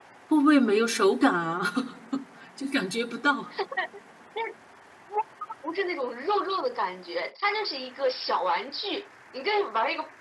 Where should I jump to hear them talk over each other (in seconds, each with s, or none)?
none